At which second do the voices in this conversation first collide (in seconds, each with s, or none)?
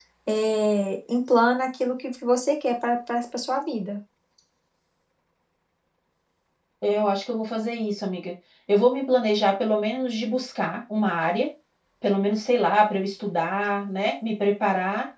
none